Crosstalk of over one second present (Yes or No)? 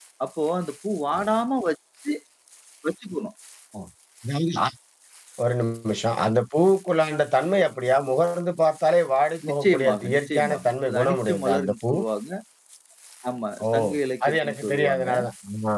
Yes